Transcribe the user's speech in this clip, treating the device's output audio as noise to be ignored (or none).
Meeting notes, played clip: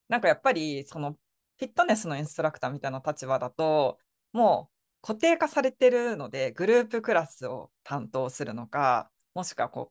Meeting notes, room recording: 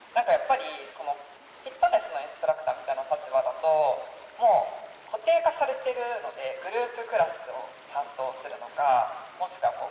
none